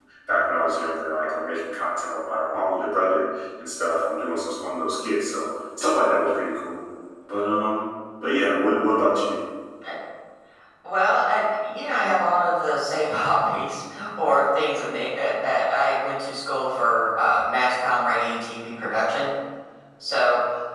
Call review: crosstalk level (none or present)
none